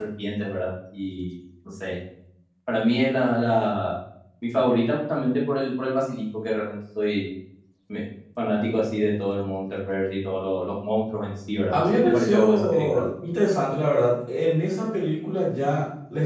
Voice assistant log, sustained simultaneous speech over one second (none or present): present